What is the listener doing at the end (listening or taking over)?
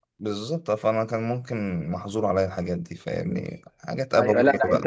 taking over